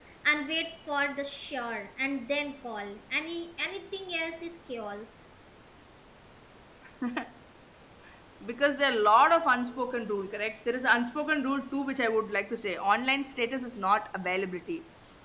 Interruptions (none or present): none